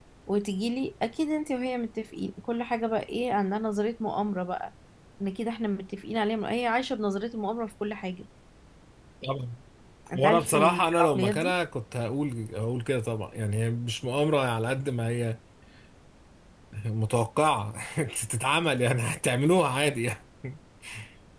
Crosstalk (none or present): present